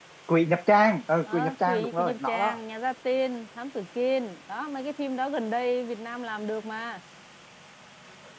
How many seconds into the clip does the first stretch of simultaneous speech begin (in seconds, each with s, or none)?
1.3 s